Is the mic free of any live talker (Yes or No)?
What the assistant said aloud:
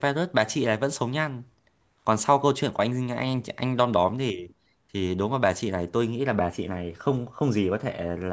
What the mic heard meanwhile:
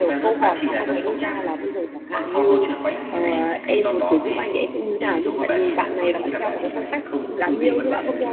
No